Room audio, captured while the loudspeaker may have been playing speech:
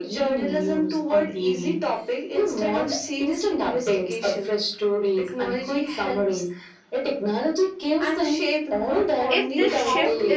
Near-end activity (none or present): present